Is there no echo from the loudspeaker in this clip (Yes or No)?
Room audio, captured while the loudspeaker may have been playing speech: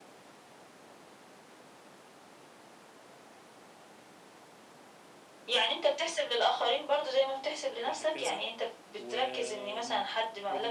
No